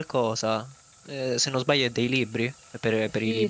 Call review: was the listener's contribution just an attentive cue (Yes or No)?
No